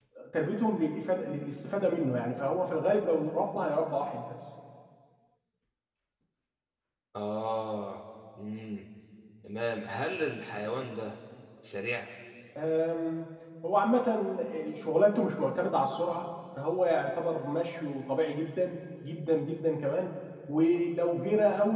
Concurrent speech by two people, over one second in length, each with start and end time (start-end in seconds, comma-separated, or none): none